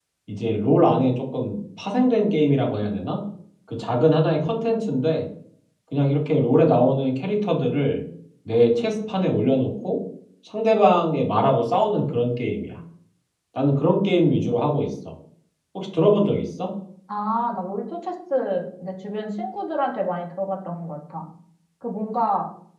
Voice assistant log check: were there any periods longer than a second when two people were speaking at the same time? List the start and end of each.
none

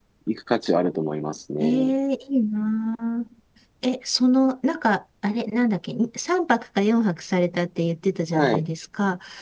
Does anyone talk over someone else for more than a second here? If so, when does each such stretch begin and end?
none

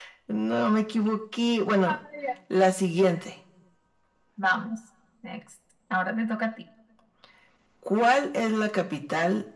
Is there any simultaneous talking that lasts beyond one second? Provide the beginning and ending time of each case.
none

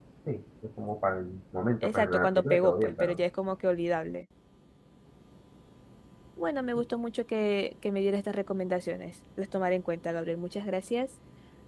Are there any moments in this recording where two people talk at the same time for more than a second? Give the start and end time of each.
1.8-3.2

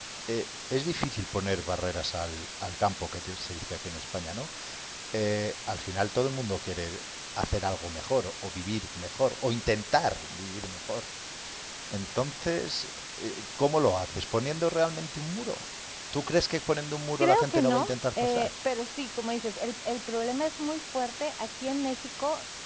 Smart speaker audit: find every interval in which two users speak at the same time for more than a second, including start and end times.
17.2-18.5

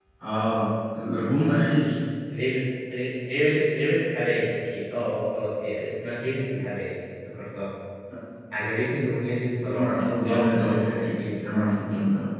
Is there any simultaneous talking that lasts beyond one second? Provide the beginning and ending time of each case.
9.7-11.2

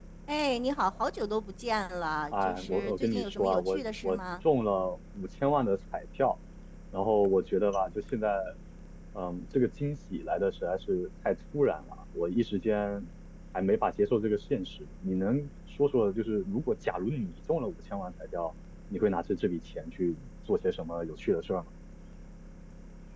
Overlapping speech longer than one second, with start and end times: 2.3-4.2

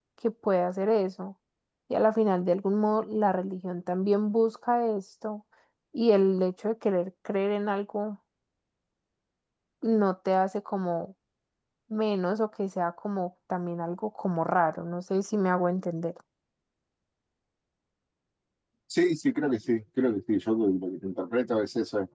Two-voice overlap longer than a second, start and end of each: none

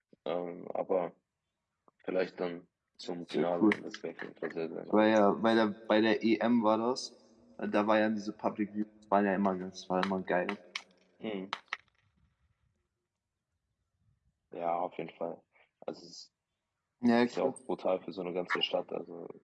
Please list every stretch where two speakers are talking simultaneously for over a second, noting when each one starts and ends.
none

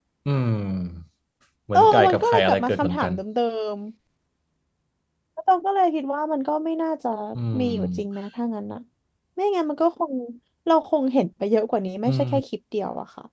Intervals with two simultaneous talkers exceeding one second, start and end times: 1.7-3.1

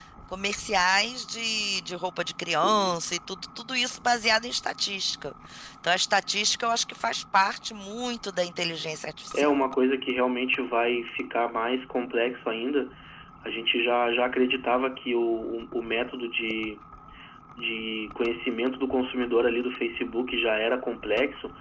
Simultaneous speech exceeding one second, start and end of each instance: none

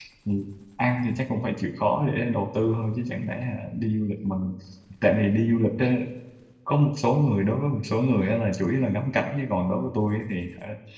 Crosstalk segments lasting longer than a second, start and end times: none

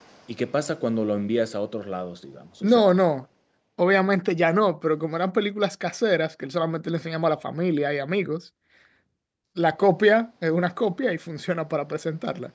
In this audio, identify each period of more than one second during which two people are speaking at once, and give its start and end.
none

